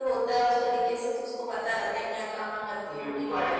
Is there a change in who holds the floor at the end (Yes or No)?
Yes